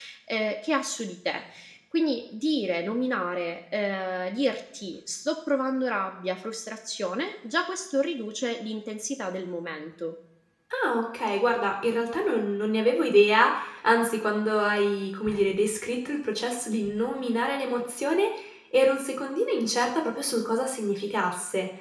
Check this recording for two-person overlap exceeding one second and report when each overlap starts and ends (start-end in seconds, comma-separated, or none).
none